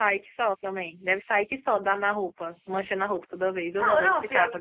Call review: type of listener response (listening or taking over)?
taking over